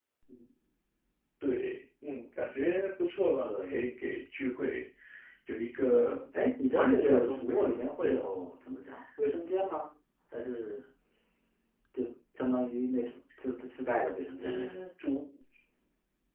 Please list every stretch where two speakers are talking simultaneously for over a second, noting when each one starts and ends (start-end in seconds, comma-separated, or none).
6.6-8.2